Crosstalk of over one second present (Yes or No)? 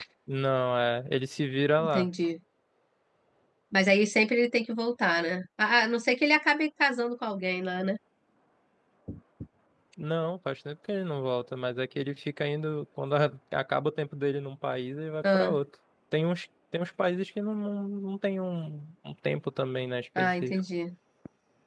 No